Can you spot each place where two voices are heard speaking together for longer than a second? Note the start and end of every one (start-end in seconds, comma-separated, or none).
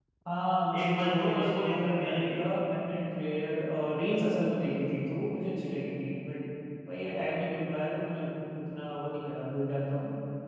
0.8-2.4